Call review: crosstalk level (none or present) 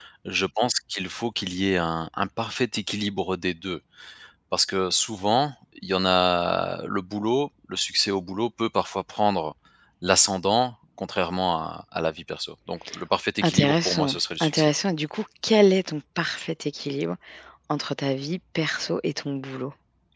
present